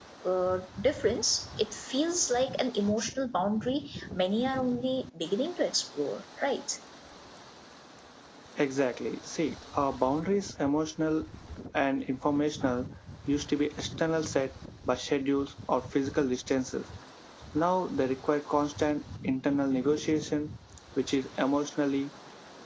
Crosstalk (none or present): none